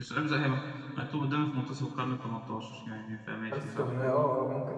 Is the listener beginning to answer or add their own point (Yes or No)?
Yes